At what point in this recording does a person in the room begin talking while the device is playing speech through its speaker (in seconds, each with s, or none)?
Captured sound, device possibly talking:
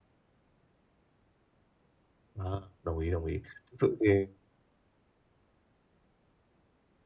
2.4 s